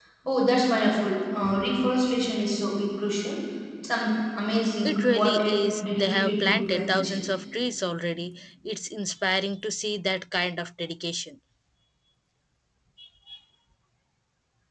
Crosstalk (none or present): present